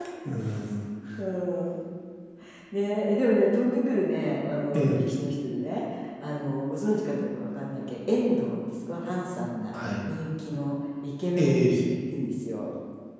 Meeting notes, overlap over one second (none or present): none